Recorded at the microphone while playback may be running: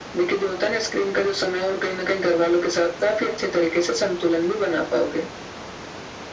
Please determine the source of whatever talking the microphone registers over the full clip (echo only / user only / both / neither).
echo only